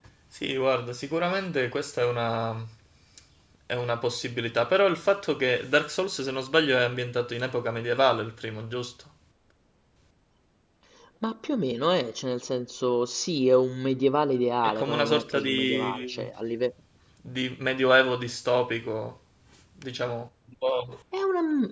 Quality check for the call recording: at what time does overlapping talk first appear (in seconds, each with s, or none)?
14.6 s